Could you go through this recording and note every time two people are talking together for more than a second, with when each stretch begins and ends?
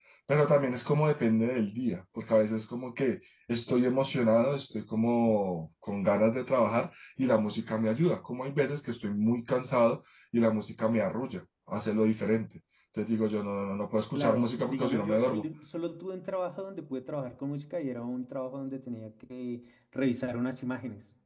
14.1-15.4

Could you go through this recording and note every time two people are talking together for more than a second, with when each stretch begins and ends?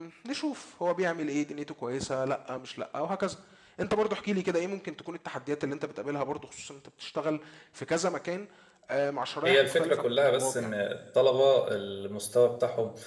9.4-10.7

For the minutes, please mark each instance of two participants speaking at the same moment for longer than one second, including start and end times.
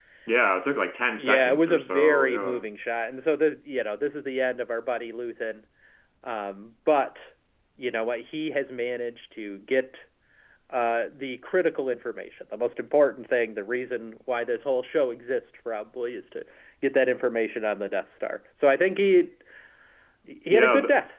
1.2-2.6

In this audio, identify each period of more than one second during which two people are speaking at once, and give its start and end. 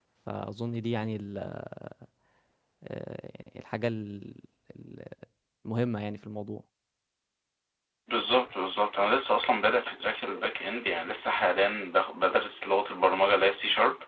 none

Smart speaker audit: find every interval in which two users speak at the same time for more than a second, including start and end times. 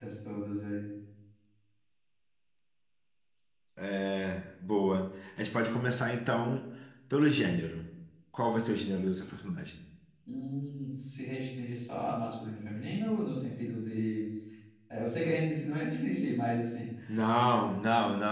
none

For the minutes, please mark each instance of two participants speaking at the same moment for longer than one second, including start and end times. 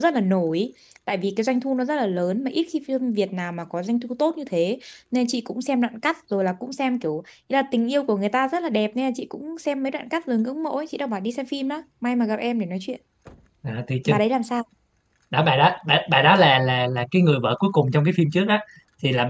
none

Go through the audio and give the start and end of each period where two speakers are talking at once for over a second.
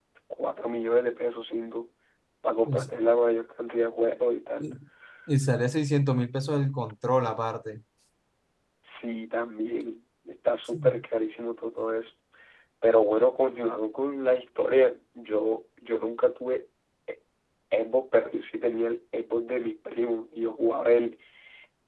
none

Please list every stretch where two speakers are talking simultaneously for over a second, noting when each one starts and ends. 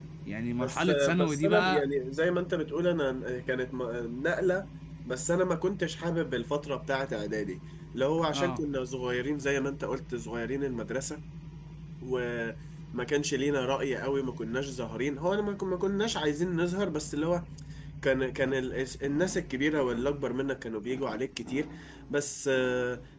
0.6-1.8

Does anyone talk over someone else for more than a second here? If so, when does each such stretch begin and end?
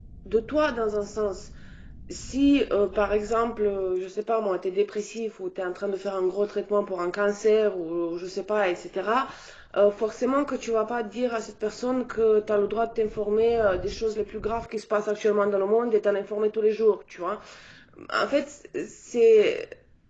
none

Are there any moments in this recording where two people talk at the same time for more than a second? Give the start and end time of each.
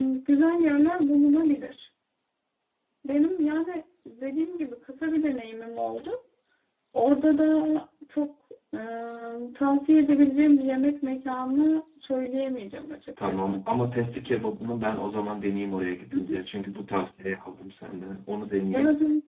none

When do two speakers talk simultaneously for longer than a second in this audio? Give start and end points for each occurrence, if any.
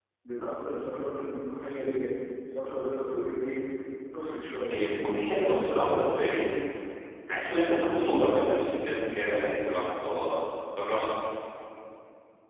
none

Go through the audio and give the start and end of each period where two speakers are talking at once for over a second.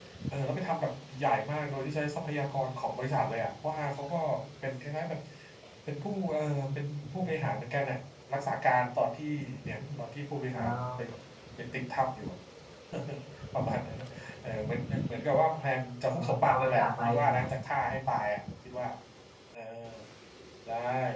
16.1-17.4

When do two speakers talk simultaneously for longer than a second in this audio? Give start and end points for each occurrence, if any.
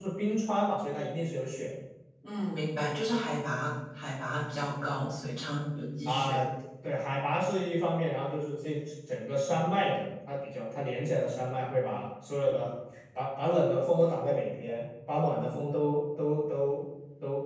none

